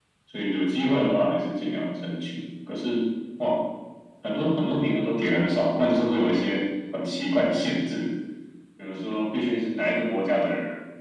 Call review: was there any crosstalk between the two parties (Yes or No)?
No